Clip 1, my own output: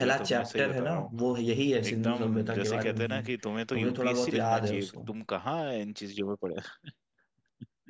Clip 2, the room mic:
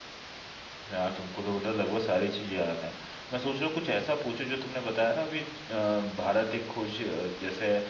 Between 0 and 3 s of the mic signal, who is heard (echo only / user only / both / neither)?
user only